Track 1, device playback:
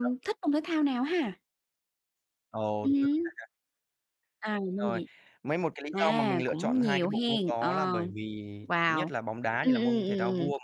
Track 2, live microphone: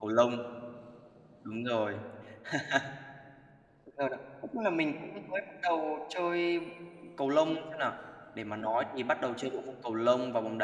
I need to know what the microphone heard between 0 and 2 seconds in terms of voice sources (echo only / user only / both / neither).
user only